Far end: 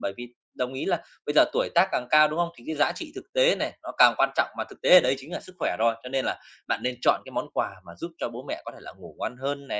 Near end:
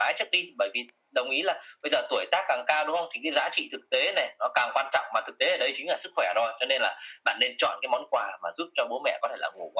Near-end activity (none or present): none